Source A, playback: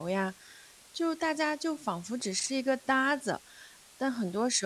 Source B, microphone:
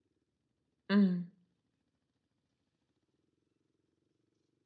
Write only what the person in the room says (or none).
嗯，